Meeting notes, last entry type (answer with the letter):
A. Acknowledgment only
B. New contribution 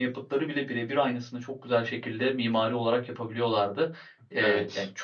A